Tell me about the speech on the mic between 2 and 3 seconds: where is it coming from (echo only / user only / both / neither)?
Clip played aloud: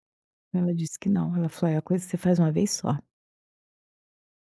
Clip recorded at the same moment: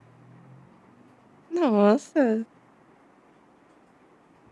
user only